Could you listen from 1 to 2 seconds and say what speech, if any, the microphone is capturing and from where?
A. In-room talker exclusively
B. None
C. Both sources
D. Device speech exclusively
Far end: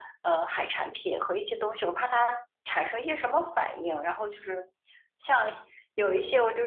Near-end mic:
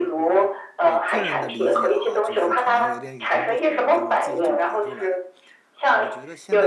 C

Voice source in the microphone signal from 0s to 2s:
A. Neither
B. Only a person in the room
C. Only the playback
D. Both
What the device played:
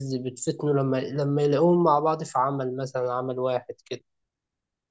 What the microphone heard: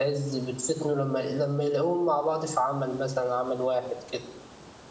C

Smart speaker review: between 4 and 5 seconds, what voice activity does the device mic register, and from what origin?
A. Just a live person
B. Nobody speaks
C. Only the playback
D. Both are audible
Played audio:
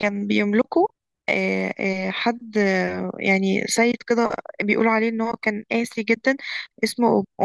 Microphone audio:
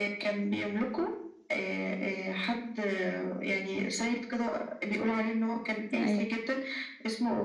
C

